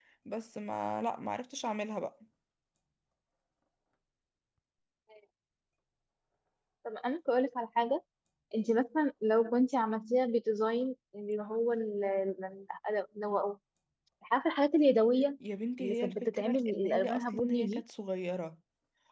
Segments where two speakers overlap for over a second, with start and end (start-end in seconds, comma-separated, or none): 15.8-17.8